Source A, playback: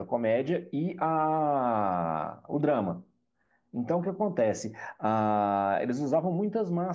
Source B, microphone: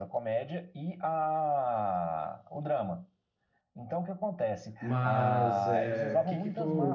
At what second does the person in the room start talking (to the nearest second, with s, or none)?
5 s